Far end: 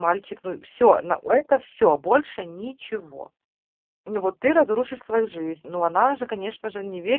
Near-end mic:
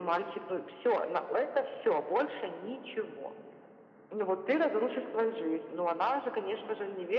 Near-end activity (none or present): none